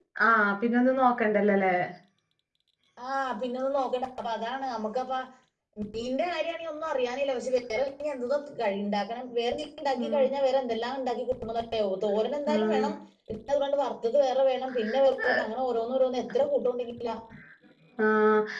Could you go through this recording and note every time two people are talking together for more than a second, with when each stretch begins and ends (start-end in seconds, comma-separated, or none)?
none